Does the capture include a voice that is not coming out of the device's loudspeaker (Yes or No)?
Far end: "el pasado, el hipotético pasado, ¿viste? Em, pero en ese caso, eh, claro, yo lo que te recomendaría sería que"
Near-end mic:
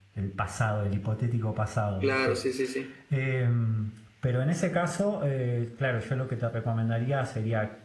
Yes